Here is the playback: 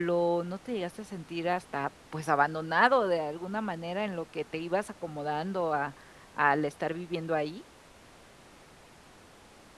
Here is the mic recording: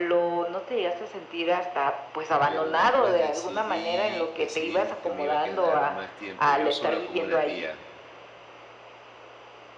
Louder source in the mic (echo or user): echo